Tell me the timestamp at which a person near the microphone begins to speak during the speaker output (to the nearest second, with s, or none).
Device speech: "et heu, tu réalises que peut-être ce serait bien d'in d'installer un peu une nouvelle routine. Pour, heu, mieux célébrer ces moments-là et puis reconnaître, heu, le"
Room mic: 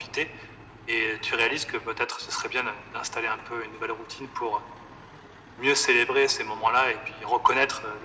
none